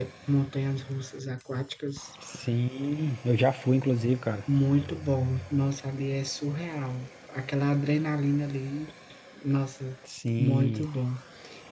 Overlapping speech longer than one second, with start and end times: none

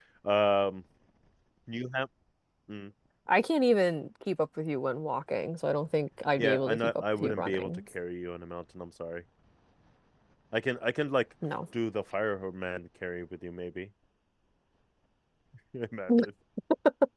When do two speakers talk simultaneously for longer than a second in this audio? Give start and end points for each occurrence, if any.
6.4-7.7

